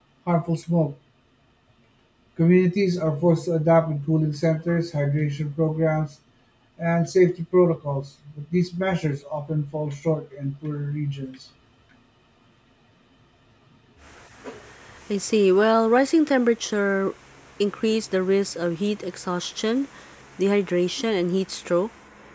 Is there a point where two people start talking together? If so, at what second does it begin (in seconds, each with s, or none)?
none